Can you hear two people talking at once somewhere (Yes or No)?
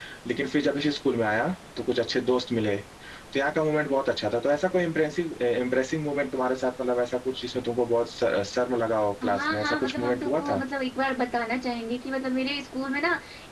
Yes